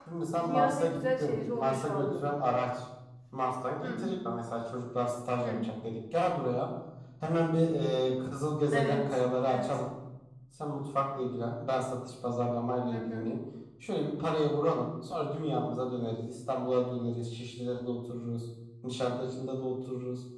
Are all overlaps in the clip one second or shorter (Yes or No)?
No